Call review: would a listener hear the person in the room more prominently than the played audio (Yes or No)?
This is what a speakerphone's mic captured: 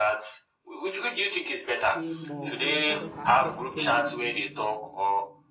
No